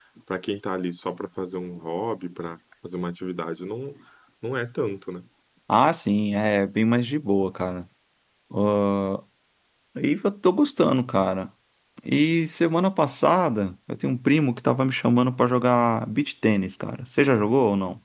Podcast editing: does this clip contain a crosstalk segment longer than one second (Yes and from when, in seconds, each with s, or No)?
No